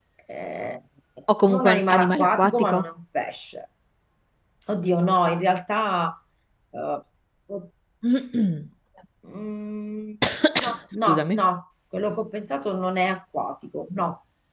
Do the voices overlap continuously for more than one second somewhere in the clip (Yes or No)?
Yes